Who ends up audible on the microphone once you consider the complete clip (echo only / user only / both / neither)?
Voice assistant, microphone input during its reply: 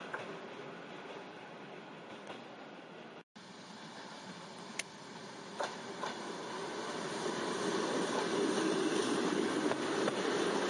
neither